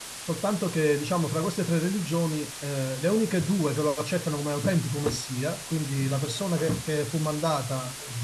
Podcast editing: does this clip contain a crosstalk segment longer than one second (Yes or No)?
No